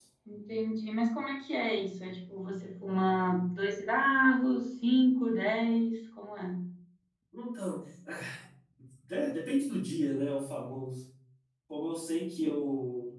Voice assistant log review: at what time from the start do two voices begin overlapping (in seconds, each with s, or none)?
none